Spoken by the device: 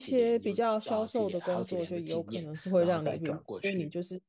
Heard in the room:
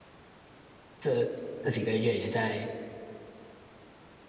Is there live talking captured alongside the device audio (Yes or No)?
Yes